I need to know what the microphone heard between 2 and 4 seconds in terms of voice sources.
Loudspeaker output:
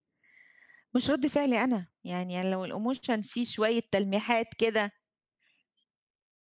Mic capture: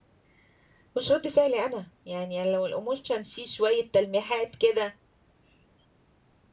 echo only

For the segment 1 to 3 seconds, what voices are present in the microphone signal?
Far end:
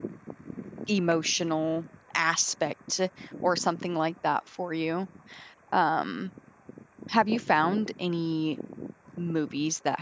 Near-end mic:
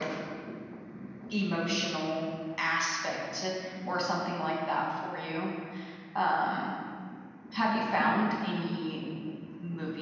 echo only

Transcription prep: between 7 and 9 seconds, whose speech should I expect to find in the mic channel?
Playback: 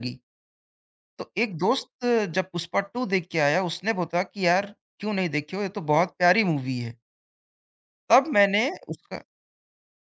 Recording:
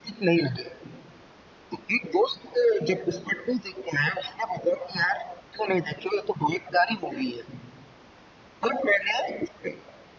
echo only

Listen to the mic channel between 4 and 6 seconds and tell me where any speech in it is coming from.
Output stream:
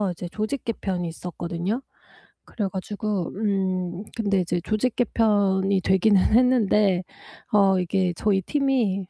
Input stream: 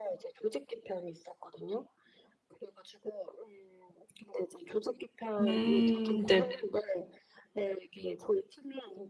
both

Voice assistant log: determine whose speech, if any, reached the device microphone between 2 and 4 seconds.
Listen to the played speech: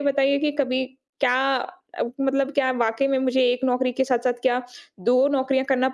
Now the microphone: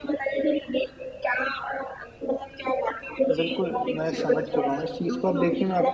both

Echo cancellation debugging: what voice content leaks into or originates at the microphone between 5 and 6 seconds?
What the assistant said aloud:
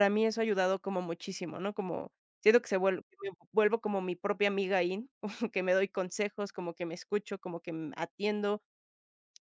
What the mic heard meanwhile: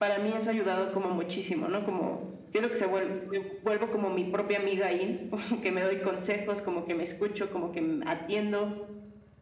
echo only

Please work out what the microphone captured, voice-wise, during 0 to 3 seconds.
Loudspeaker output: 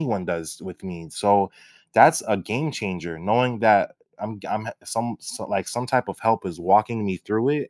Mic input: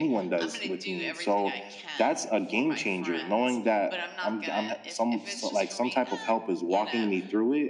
both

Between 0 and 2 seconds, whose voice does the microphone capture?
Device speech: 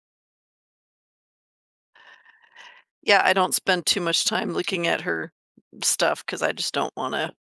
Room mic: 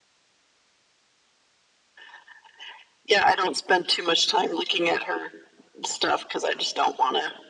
neither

